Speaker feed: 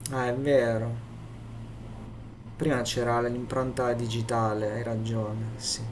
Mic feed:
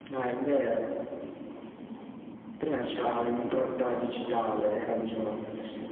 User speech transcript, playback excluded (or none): 8K, quant'è? 8K.